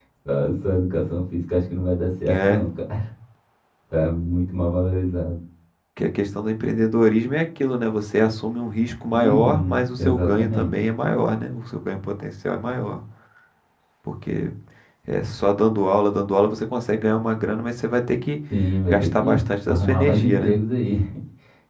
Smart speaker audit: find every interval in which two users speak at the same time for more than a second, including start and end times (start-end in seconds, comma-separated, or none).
9.1-10.7, 18.9-20.6